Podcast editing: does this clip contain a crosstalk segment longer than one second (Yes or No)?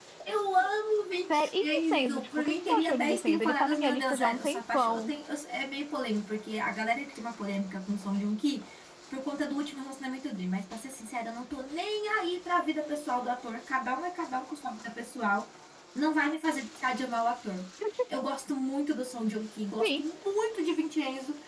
Yes